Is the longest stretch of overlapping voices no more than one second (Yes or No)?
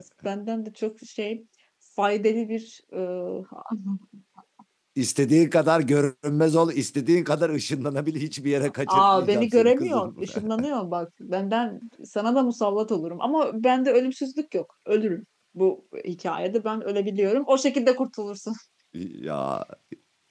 No